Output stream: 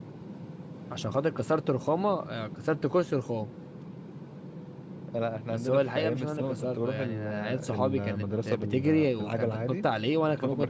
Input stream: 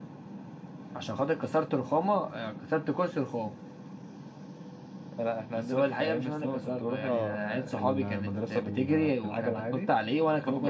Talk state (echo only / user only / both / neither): both